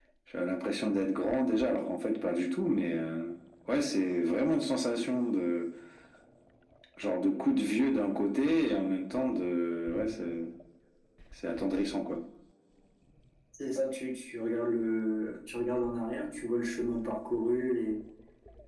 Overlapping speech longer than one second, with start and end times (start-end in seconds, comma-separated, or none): none